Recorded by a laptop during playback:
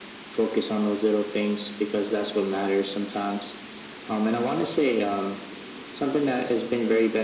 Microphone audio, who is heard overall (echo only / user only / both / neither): echo only